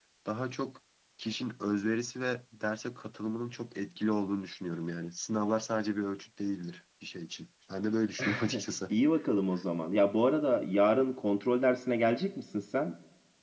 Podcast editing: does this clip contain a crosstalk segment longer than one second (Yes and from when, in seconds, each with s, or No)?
No